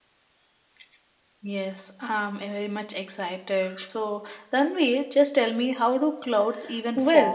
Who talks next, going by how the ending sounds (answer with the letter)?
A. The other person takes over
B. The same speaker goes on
A